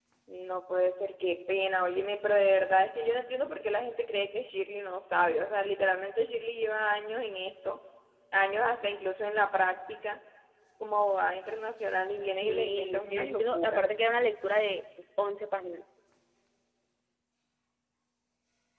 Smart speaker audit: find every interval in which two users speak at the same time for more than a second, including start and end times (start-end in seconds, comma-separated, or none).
12.4-13.8